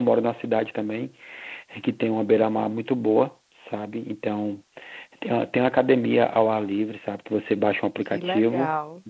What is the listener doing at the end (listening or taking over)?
listening